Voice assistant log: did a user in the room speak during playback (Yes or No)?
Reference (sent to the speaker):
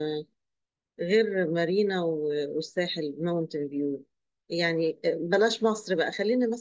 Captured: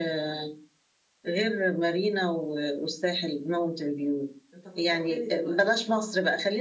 Yes